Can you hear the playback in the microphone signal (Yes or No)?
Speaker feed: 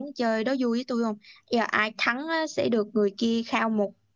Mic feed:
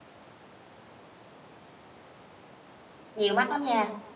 No